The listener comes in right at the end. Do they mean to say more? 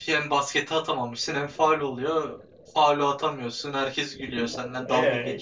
Yes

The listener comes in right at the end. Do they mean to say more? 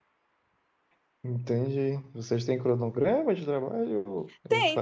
Yes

